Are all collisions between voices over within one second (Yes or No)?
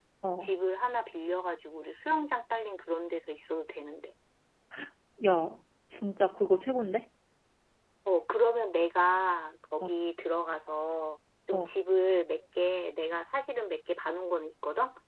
Yes